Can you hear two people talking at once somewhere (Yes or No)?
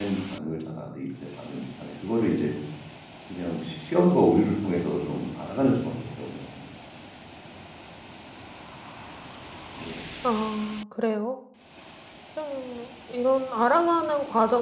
No